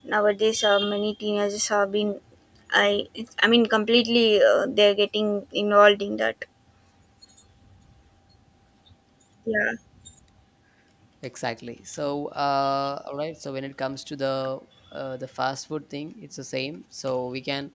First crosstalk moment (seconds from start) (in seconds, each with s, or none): none